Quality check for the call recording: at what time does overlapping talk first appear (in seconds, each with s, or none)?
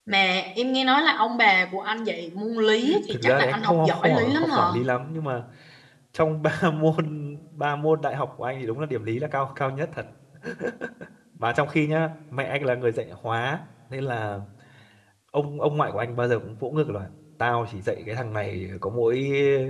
3.1 s